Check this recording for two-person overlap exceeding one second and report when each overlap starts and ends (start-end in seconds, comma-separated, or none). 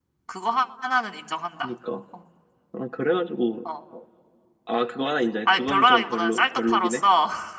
5.4-7.0